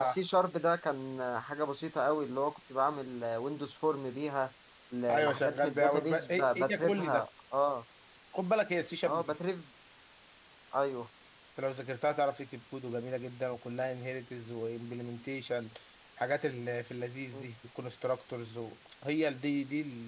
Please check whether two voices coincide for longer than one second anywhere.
Yes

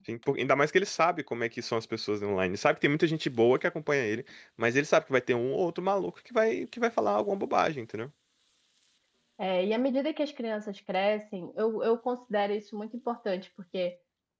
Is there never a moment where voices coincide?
Yes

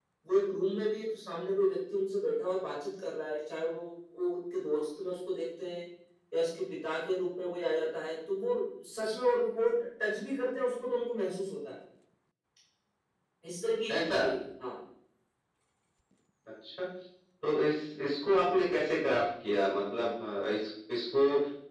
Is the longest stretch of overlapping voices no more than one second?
Yes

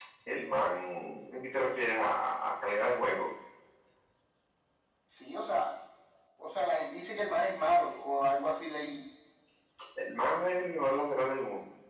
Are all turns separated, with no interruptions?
Yes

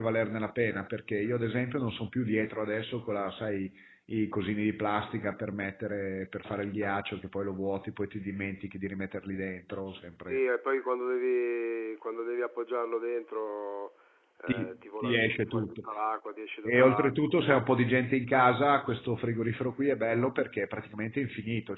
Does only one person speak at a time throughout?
No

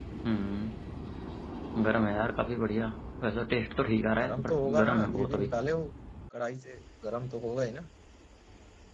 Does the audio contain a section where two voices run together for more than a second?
Yes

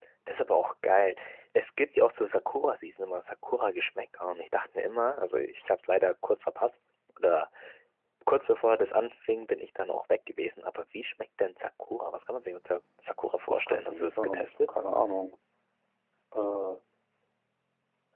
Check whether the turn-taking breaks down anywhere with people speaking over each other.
Yes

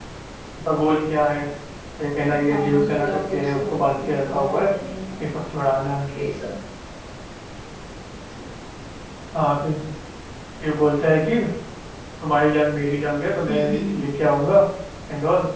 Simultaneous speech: Yes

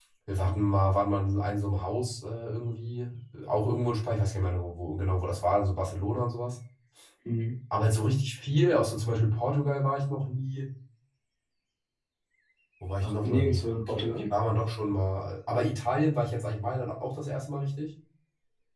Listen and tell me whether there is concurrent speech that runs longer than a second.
Yes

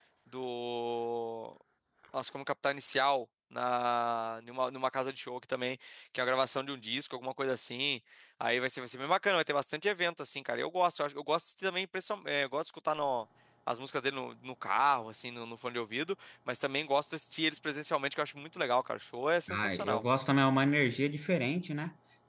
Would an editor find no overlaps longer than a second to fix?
Yes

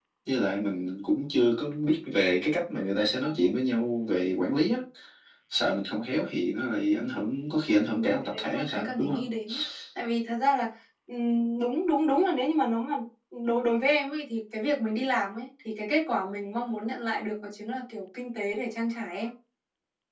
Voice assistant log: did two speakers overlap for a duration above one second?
Yes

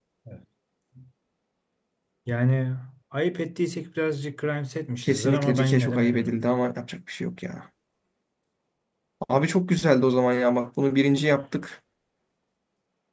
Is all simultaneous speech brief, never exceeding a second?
No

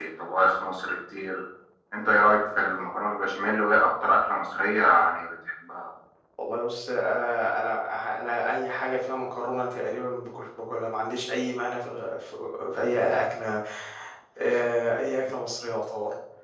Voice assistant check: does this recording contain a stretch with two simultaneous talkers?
No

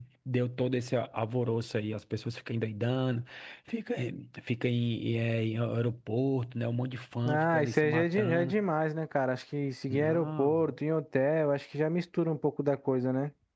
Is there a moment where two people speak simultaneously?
Yes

